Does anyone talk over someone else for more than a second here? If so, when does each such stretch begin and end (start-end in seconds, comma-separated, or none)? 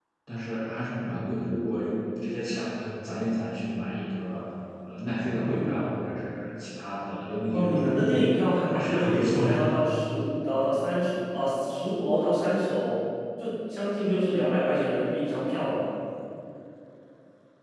7.5-9.5